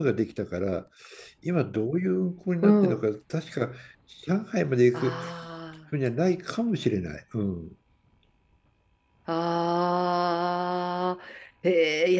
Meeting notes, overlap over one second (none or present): none